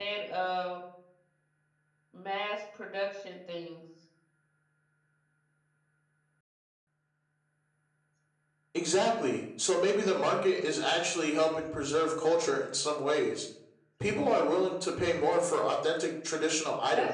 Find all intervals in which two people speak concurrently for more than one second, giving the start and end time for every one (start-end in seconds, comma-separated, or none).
none